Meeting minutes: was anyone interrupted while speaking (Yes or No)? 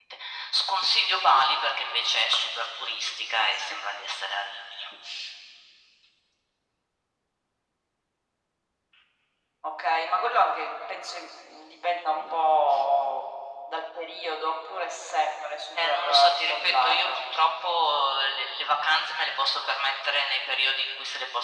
Yes